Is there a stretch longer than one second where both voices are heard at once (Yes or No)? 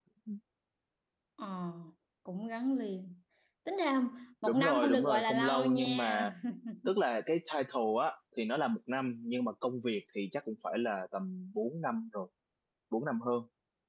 Yes